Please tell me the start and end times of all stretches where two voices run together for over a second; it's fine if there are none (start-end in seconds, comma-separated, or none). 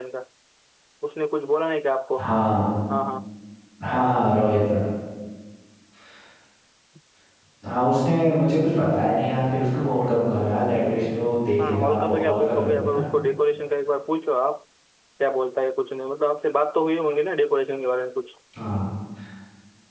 11.6-13.1